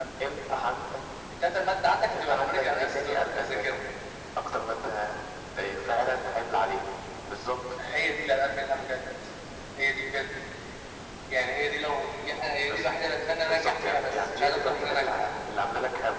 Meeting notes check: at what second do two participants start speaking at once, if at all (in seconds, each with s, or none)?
2.2 s